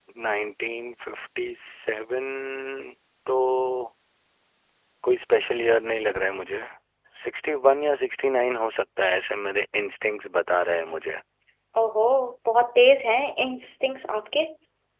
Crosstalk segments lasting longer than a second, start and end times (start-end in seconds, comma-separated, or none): none